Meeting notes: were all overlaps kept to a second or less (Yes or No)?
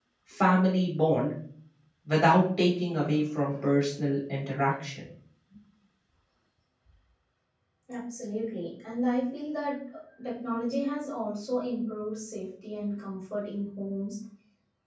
Yes